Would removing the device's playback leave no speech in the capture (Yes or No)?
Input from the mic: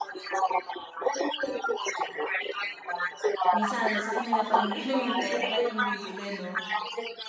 No